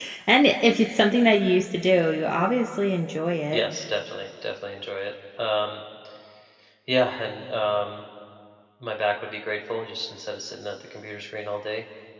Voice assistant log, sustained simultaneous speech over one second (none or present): none